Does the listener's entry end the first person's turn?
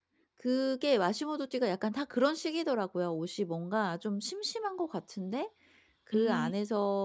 No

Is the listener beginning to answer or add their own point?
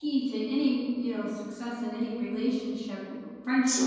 No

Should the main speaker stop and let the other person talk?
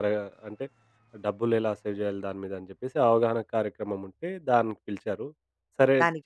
No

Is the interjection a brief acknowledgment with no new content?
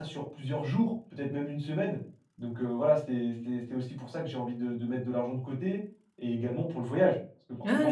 No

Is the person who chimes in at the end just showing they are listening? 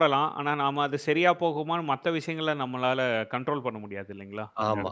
No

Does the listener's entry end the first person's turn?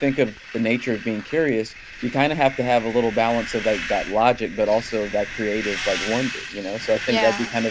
No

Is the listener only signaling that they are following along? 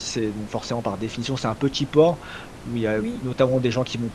Yes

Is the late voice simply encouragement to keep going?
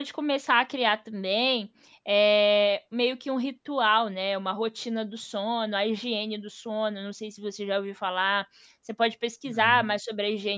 Yes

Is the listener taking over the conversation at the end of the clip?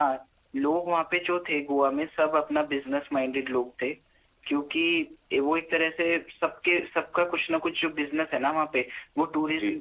No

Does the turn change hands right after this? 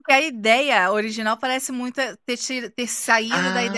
Yes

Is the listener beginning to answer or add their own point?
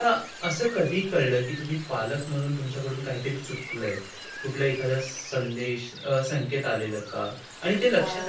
No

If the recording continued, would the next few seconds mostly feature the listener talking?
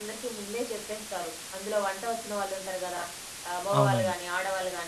No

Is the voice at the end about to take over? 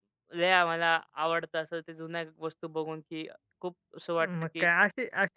Yes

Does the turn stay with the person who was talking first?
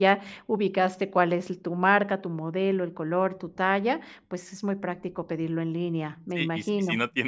No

